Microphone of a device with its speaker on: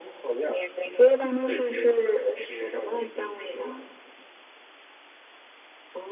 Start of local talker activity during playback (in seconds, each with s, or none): none